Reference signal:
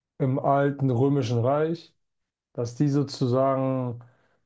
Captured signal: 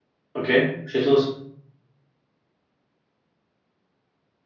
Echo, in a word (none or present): none